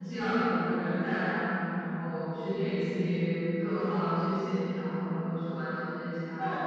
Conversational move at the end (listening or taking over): taking over